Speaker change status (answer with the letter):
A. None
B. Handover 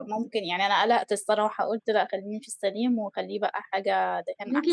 B